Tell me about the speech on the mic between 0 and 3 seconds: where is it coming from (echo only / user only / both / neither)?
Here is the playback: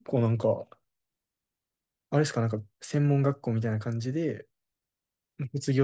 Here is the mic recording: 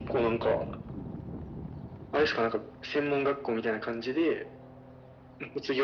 echo only